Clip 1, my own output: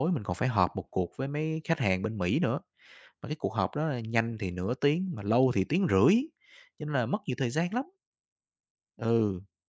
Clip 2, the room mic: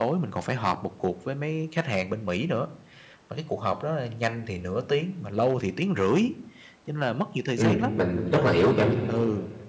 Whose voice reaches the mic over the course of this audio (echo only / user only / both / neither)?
both